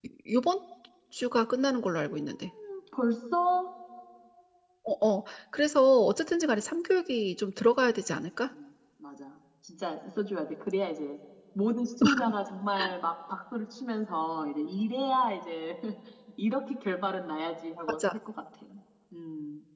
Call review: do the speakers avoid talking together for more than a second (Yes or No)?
Yes